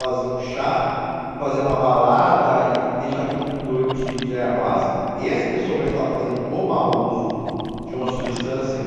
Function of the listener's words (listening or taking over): listening